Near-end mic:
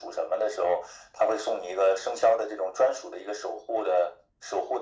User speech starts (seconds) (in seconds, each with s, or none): none